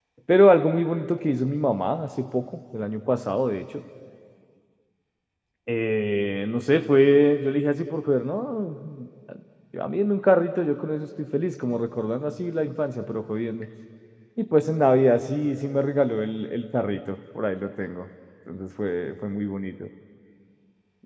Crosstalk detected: No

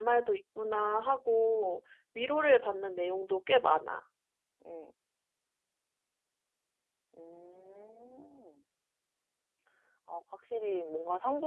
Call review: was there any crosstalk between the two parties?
No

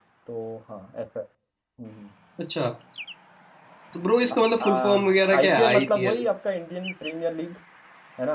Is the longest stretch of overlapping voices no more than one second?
No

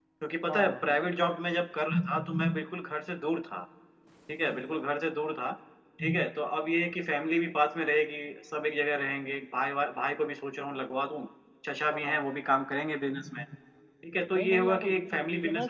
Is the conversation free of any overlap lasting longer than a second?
No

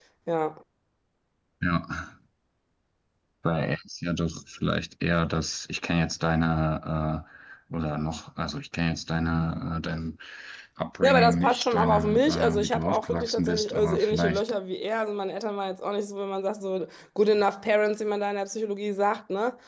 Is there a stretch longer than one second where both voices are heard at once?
Yes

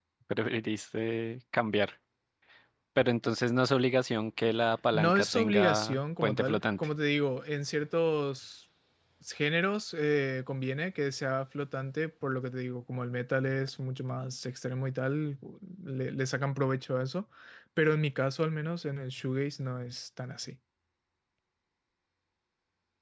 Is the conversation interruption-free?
No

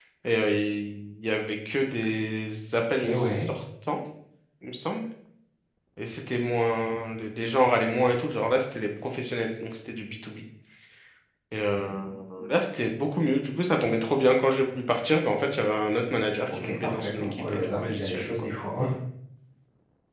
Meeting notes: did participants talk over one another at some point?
Yes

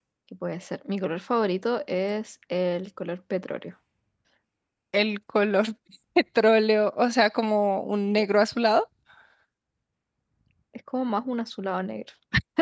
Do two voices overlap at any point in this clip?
No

